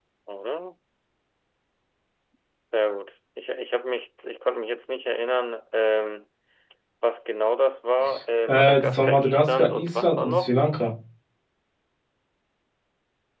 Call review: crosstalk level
present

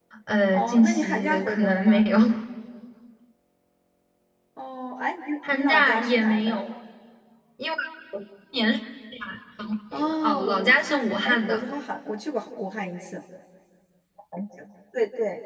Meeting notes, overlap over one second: present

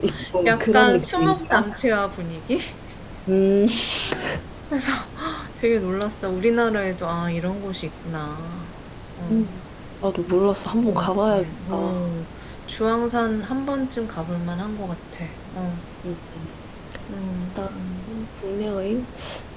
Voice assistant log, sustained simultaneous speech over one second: present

